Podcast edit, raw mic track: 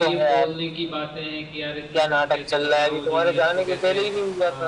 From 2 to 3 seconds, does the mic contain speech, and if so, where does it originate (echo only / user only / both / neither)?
both